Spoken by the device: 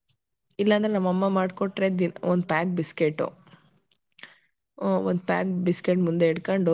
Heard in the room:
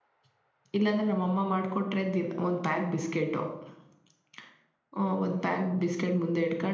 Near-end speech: none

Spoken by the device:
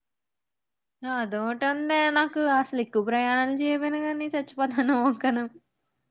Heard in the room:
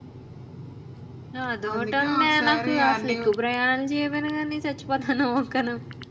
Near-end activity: present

